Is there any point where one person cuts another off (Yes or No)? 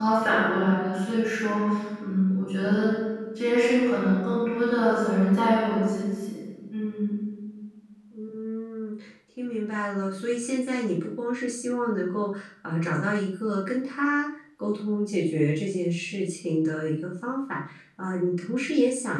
No